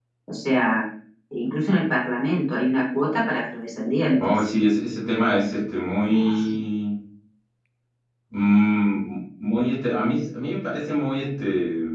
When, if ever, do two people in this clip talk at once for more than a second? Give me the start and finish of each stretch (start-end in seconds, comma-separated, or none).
none